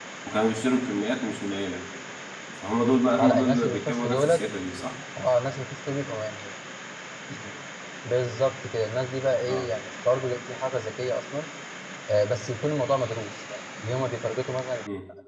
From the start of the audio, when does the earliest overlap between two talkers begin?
3.2 s

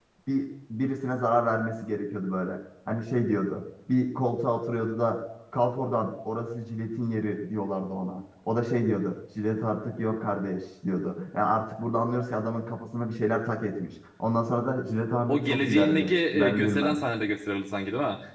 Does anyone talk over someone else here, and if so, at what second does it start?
15.3 s

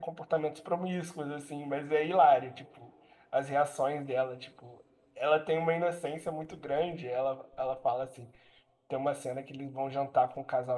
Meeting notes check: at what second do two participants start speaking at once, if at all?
none

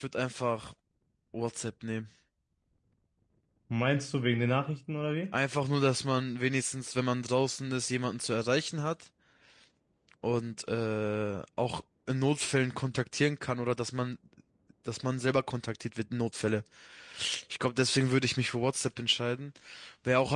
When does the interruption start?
none

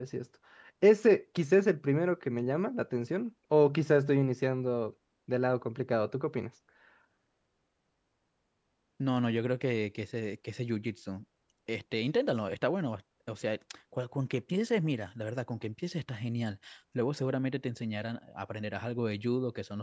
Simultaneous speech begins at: none

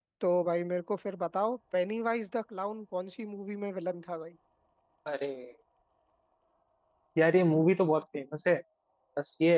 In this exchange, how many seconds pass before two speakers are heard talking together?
none

